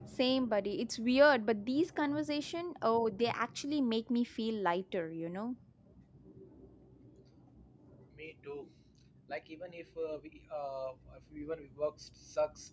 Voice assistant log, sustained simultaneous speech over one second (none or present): none